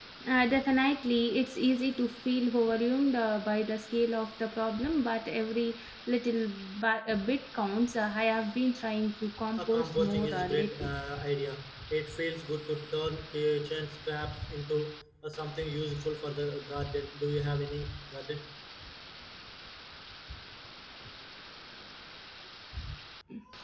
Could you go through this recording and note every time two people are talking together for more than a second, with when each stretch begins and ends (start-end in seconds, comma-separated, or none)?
9.6-10.9